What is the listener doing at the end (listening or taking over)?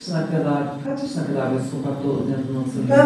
taking over